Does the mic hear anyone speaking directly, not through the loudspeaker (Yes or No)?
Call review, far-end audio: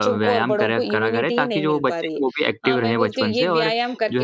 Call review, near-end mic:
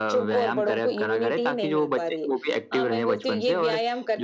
No